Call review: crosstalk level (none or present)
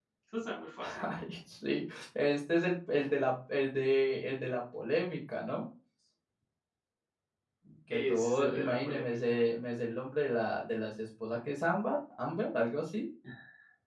present